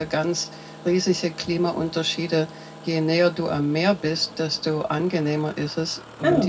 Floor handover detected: No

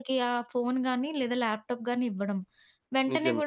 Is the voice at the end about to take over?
No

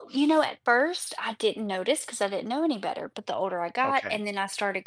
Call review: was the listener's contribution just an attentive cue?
Yes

